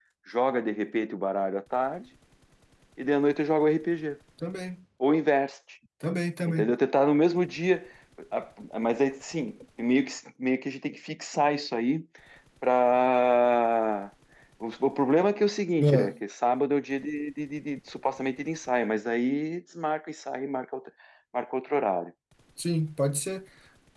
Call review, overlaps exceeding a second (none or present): none